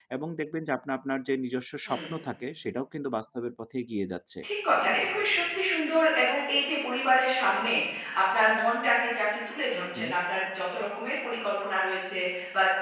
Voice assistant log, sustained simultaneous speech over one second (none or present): none